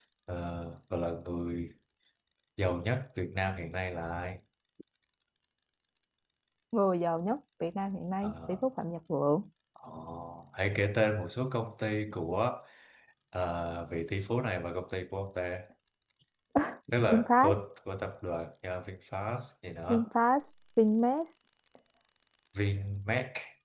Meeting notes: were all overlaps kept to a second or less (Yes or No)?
Yes